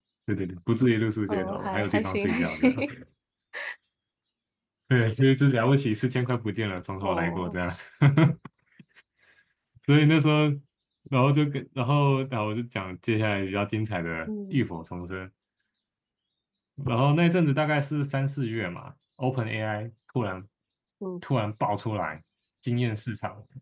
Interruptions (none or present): present